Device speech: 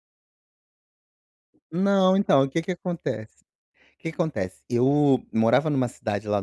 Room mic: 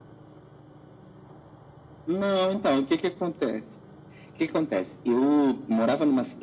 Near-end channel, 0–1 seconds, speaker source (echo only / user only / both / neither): neither